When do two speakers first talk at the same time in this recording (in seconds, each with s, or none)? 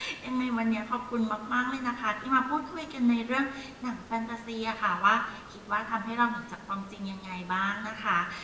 none